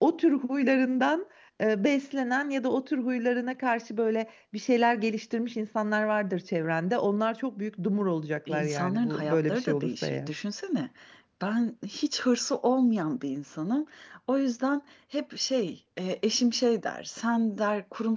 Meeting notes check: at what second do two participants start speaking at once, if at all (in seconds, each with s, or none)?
8.5 s